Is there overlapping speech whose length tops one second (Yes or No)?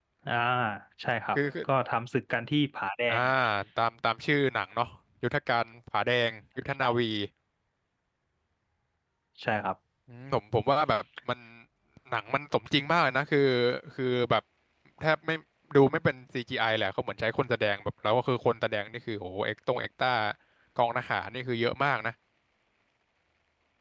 No